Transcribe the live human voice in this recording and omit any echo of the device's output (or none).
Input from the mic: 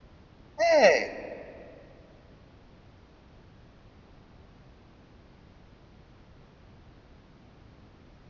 হ্যাঁ,